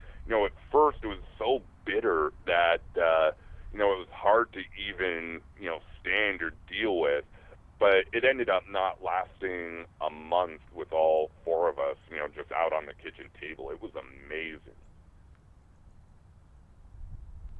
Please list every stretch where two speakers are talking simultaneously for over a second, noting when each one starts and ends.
none

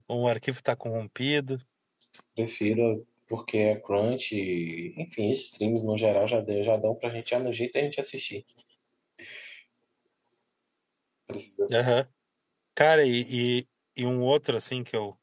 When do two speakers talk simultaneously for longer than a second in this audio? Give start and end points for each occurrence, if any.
none

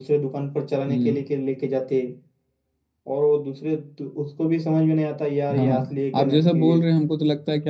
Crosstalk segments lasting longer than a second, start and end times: 5.6-6.8

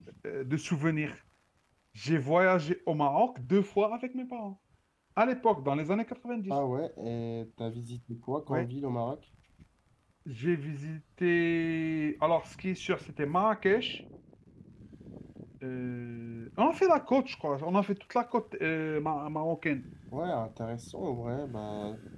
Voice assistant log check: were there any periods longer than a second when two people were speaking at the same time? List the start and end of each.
none

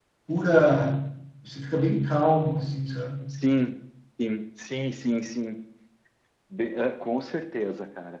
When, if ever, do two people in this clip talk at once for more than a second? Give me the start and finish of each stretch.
none

